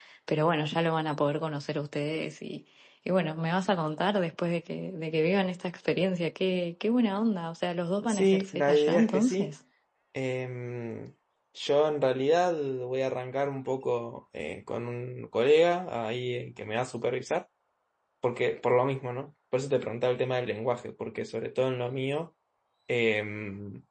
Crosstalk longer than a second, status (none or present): present